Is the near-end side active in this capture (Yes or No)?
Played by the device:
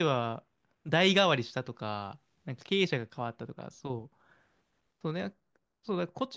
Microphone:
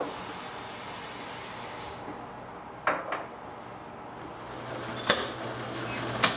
No